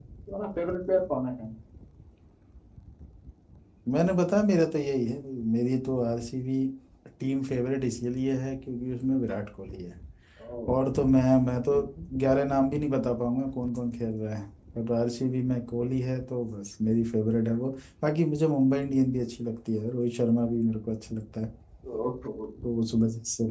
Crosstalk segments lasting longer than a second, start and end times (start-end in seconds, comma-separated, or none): none